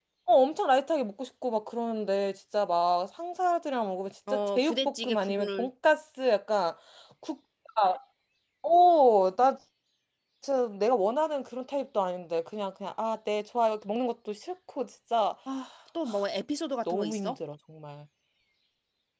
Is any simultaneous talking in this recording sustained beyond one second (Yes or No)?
Yes